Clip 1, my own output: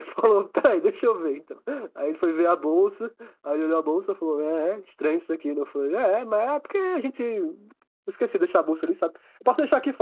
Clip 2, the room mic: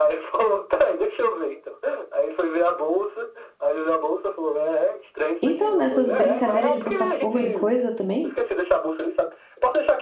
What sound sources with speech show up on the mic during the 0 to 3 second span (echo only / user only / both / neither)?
echo only